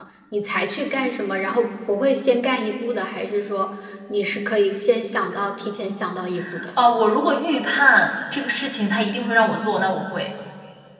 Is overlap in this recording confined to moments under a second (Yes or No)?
Yes